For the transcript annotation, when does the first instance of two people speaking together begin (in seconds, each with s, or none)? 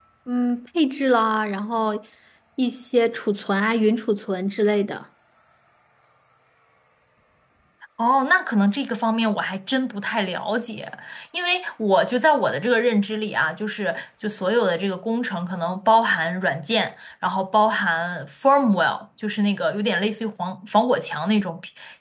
none